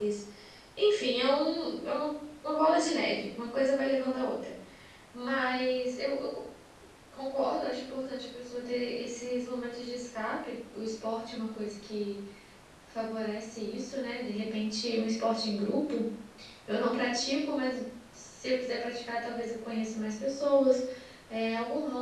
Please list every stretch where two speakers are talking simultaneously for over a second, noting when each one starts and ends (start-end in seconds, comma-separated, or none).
none